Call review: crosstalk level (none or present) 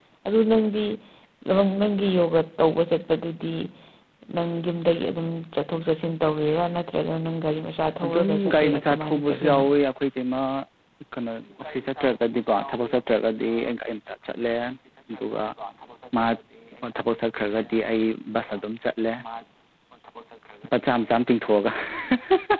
present